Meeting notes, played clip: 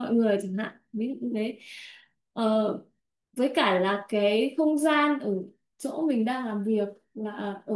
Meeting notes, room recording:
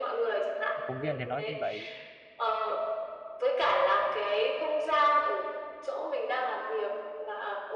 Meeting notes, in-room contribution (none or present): present